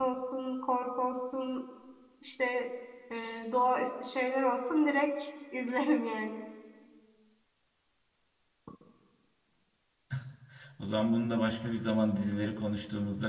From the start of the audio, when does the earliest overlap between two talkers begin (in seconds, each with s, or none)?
none